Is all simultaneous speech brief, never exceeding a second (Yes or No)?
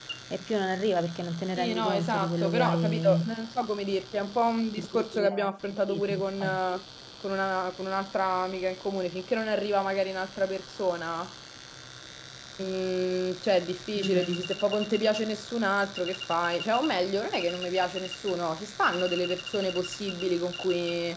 No